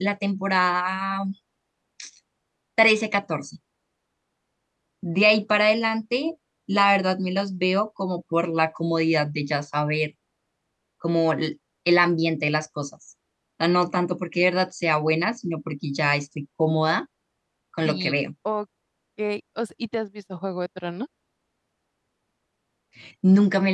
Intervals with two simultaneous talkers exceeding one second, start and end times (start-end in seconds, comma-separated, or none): none